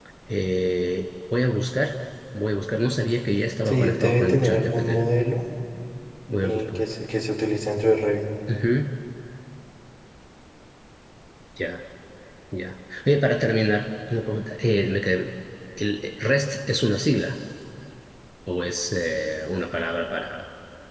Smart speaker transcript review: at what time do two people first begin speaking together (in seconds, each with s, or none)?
3.6 s